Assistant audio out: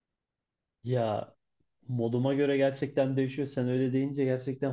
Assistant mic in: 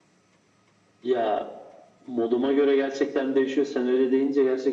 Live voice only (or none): none